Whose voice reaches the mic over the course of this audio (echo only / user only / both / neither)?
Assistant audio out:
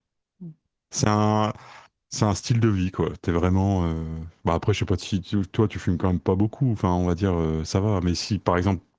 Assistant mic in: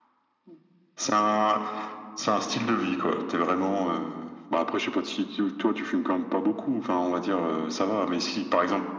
echo only